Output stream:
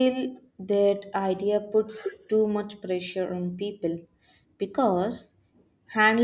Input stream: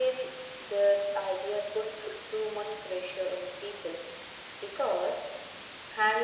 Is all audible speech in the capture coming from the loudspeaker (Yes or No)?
Yes